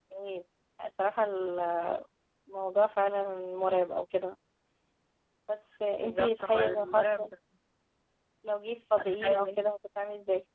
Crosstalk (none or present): present